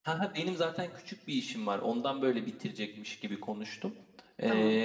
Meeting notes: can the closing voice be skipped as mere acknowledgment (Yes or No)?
Yes